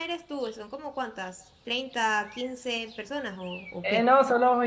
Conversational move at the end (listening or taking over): taking over